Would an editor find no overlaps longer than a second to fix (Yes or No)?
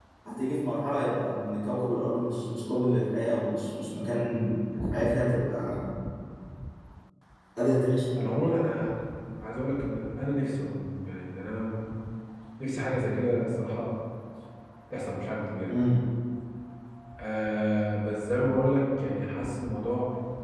Yes